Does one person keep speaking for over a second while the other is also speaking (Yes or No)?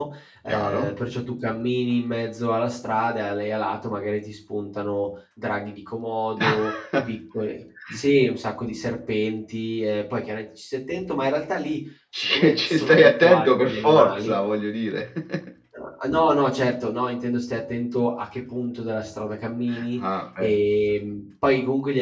Yes